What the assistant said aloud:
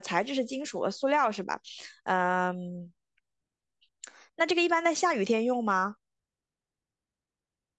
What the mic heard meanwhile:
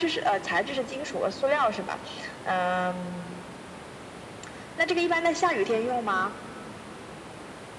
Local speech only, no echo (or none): none